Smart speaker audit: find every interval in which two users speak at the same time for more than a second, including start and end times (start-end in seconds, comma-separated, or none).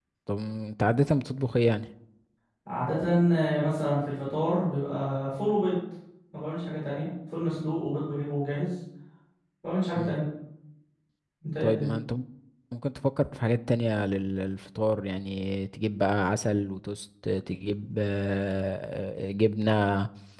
none